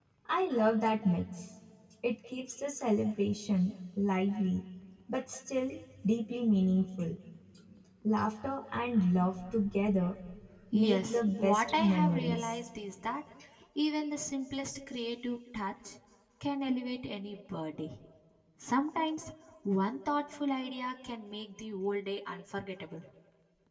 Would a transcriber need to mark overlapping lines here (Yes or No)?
Yes